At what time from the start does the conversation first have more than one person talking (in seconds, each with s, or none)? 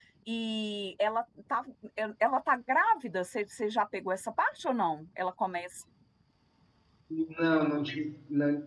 none